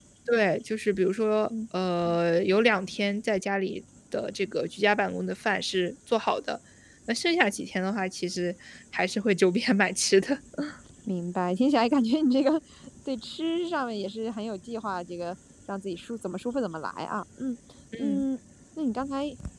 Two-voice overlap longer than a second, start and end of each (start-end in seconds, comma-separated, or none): none